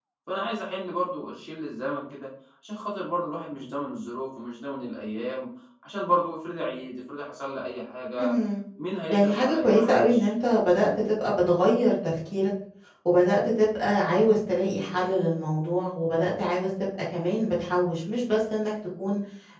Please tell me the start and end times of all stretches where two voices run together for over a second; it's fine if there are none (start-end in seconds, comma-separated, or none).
9.1-10.3